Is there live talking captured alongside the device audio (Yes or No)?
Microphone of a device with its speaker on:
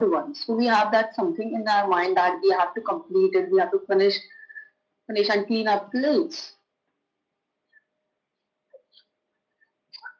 No